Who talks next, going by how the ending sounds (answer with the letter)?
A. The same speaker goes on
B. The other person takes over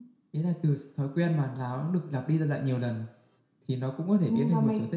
B